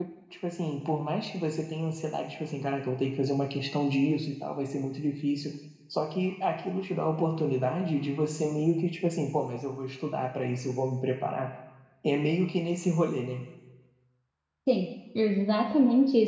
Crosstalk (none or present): none